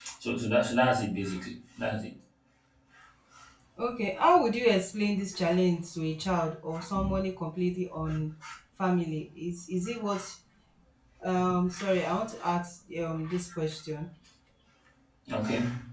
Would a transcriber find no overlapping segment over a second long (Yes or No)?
Yes